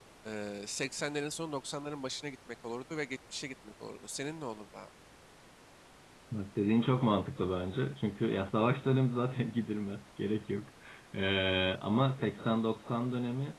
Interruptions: none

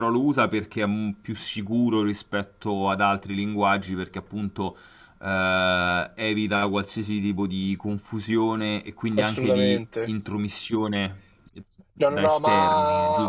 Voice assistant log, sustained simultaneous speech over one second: present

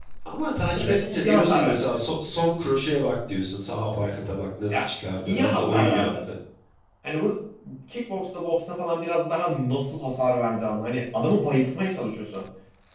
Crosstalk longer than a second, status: present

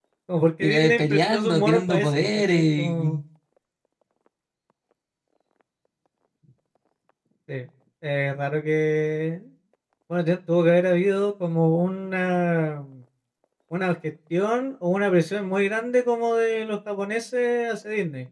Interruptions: present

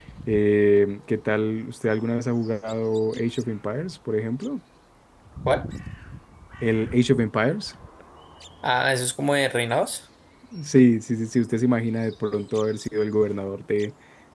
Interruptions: none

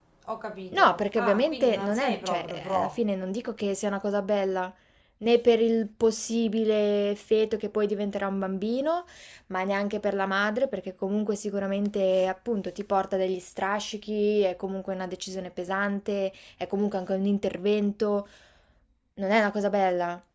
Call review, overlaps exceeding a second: present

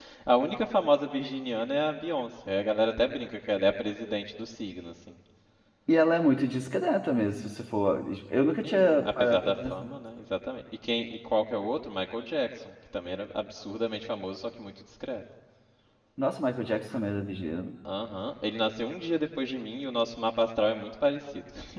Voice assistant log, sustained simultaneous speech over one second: present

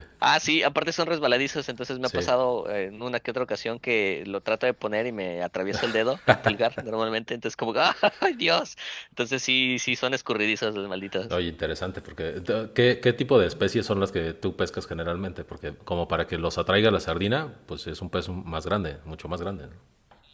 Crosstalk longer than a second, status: none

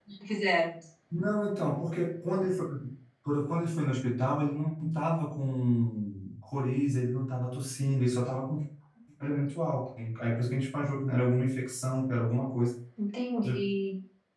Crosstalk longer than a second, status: none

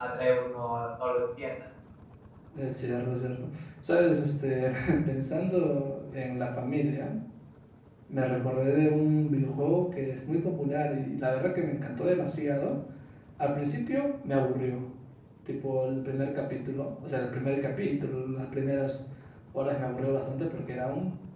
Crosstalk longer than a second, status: none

